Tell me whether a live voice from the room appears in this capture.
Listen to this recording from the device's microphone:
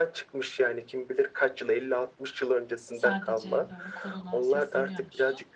Yes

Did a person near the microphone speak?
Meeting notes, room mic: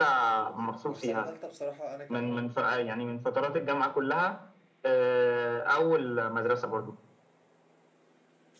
Yes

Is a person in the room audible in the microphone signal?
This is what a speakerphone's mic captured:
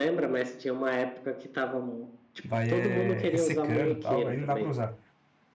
Yes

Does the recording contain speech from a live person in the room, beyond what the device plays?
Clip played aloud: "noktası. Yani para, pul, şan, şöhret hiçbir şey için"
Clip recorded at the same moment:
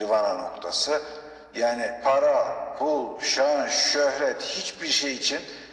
No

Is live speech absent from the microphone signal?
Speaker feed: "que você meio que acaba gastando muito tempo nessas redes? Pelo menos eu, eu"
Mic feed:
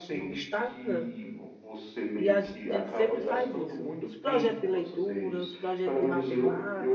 No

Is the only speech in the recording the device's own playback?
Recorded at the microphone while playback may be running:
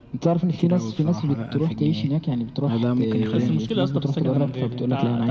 No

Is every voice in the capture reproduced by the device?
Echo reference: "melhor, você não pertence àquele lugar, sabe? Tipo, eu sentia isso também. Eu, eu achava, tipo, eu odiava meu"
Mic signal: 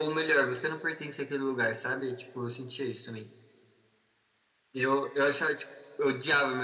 Yes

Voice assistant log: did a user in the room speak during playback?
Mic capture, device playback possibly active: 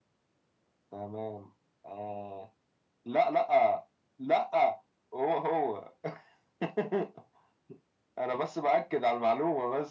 No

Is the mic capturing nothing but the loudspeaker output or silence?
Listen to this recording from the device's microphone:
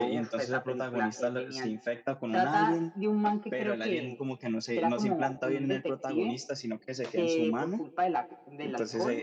No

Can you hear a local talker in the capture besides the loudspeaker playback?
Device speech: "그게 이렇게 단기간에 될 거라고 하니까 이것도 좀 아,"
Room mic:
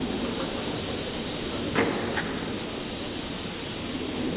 No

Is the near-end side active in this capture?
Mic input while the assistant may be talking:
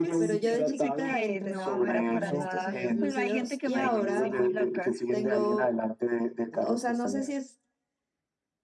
Yes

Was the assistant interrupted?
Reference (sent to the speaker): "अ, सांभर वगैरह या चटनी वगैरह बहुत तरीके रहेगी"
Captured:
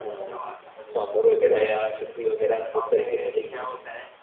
Yes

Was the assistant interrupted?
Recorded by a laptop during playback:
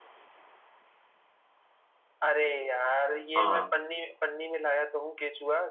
Yes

